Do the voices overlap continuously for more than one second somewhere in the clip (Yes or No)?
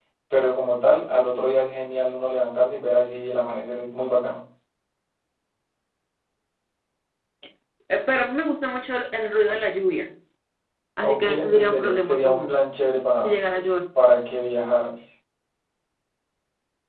Yes